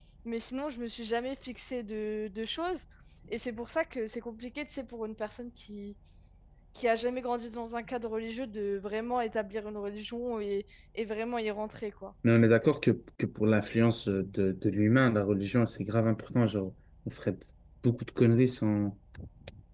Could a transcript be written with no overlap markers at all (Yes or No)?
Yes